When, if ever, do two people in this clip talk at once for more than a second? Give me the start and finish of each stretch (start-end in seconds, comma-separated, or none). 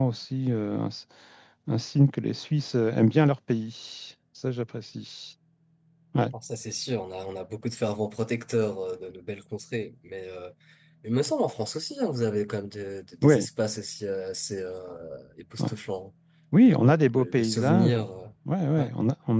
16.7-18.0